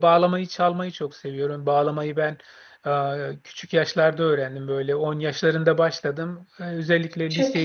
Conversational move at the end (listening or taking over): listening